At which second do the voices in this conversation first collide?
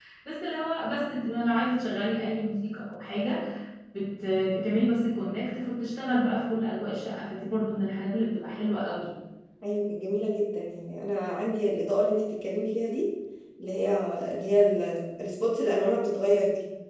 none

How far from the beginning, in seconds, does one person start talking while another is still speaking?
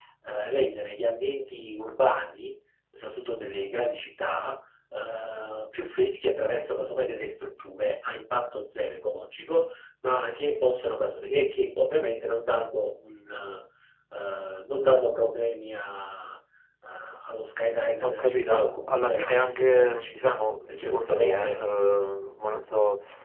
18 s

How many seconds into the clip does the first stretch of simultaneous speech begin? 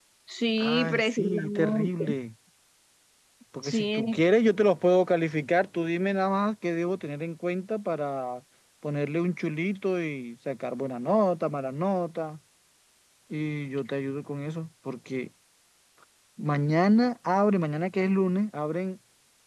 1 s

